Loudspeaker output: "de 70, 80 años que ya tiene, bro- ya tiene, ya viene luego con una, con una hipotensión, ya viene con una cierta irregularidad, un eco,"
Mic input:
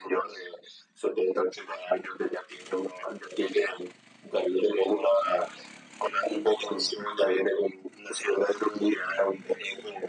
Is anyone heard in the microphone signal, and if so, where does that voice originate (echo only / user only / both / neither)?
echo only